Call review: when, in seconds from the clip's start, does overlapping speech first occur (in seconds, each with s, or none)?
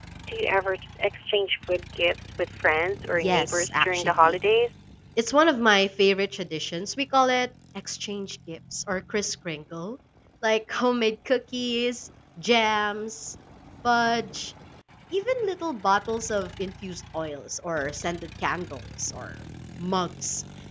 3.1 s